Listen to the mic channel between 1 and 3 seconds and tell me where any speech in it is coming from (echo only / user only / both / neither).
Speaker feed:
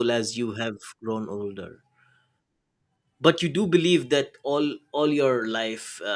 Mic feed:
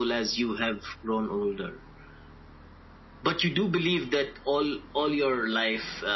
echo only